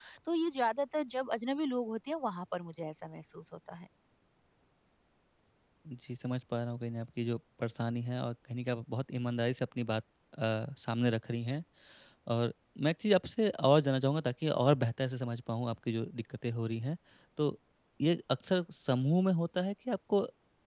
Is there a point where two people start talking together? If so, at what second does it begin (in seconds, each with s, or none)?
none